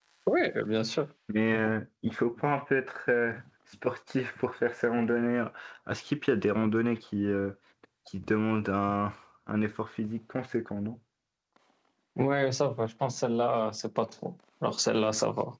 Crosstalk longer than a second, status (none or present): none